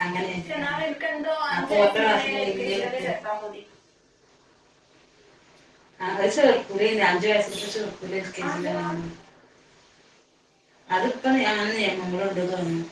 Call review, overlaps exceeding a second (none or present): present